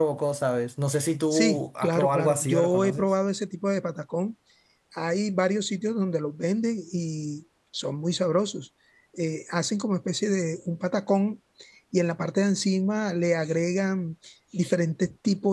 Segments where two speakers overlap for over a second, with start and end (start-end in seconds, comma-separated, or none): 1.3-3.1